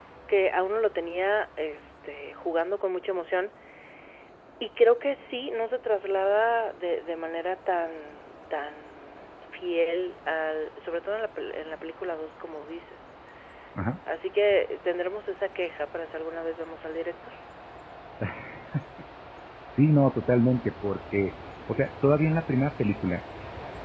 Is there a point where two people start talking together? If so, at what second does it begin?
none

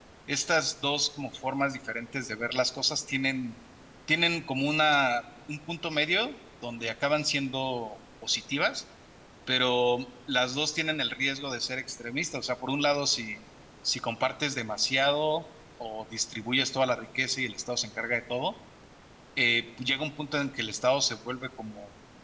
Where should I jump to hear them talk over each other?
none

